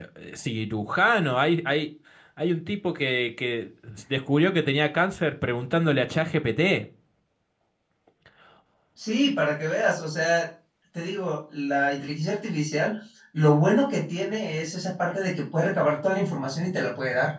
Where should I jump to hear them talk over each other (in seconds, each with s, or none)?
none